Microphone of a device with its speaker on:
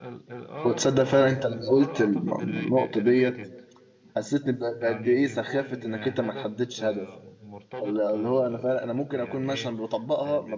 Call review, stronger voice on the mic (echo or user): user